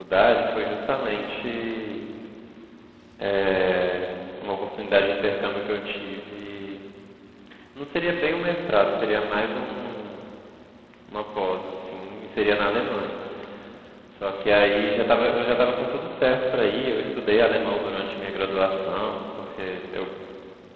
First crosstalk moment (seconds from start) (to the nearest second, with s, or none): none